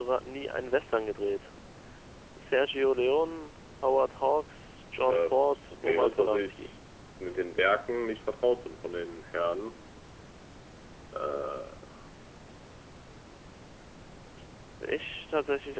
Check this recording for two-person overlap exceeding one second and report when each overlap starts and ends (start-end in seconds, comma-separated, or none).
5.1-6.7